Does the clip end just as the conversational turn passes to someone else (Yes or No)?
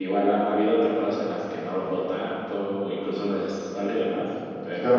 Yes